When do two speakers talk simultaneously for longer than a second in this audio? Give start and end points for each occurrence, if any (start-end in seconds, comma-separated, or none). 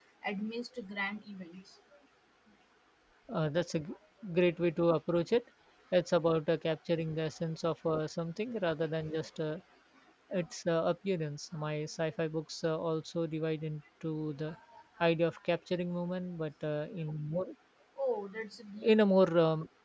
none